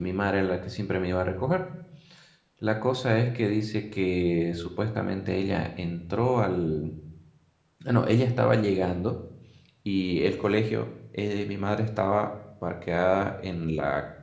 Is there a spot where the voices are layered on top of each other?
No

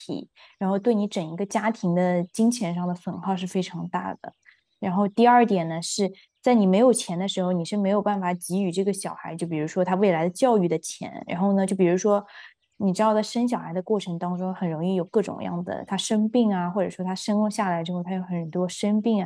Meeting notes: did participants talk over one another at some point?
No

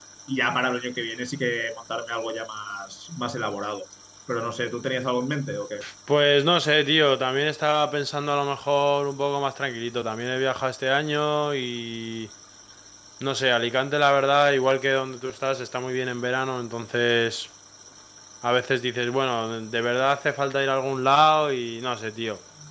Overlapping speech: No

